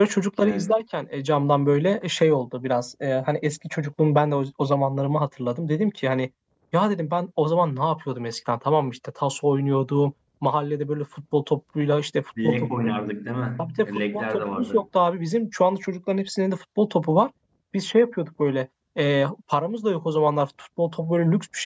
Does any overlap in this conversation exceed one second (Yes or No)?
Yes